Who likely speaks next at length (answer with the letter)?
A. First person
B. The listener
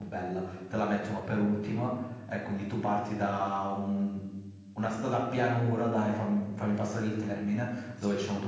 A